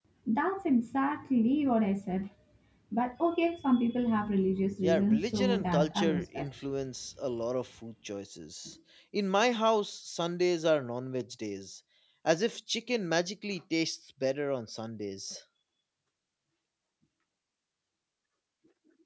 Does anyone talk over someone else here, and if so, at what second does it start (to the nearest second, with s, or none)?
5 s